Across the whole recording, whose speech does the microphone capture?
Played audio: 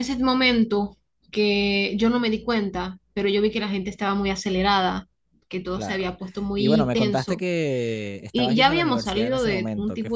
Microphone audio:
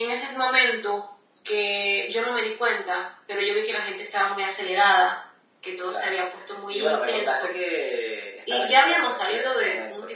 echo only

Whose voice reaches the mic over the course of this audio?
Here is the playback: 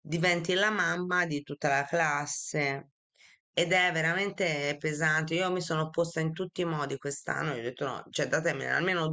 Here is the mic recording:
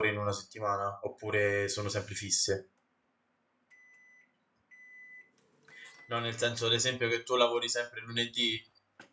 user only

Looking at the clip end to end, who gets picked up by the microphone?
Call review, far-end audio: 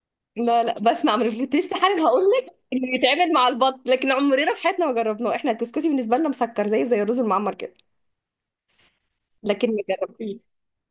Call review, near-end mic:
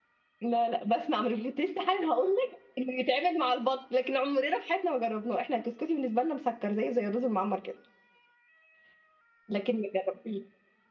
echo only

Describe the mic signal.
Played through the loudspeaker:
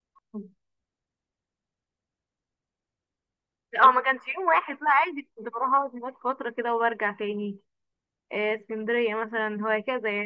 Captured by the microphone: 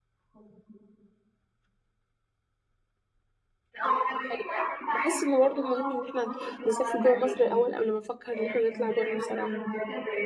both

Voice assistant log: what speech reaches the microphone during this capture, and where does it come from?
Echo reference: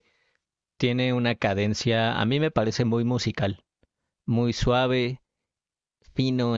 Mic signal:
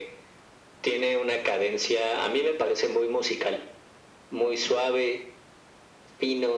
echo only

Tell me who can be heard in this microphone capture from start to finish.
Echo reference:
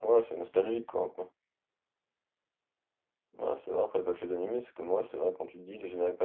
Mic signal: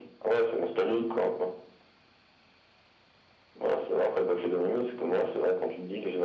echo only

